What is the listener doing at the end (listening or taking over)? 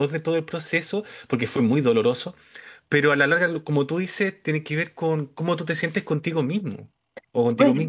taking over